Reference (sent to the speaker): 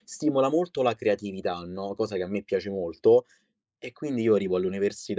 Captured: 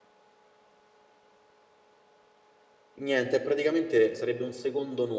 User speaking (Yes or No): Yes